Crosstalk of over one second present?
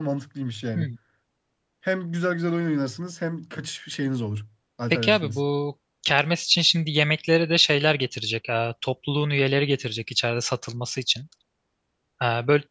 No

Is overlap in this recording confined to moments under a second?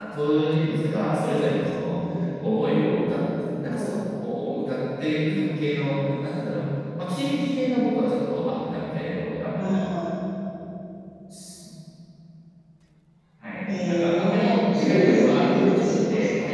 No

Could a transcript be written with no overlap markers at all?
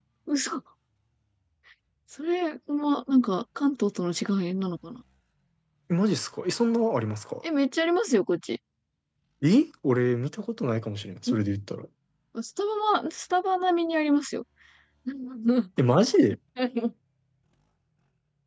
Yes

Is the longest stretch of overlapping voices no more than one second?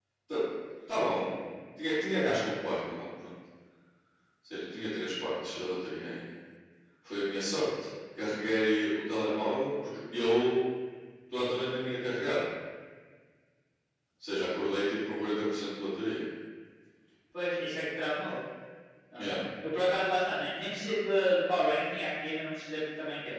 Yes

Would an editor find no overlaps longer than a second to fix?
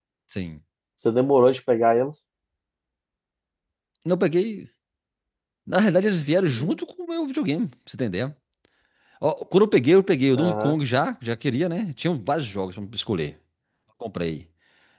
Yes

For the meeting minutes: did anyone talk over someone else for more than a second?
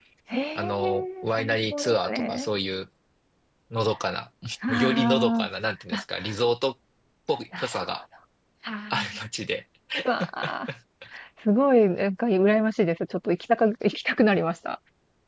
Yes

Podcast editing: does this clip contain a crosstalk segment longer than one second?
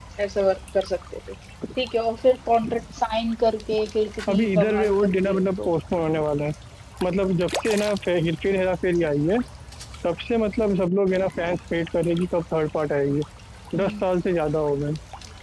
Yes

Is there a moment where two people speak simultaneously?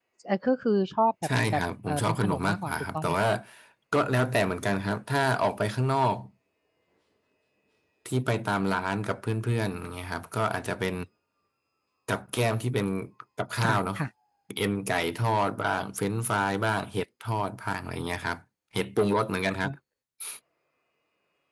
Yes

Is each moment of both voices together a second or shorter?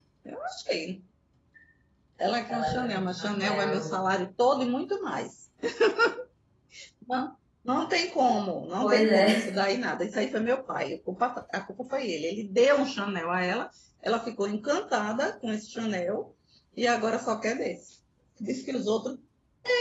No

